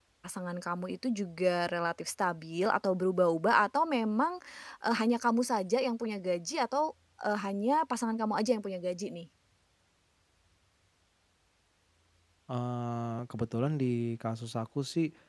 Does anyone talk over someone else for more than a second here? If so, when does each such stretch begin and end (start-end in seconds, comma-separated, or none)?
none